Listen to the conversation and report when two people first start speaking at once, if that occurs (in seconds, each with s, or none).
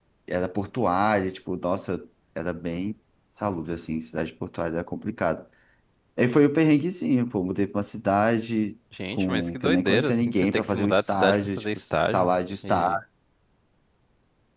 8.9 s